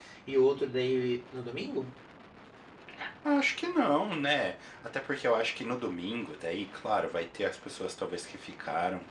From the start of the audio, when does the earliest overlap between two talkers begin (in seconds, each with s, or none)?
none